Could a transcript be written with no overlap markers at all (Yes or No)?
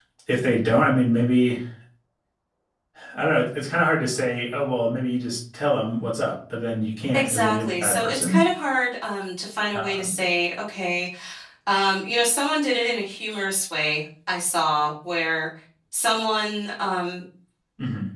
No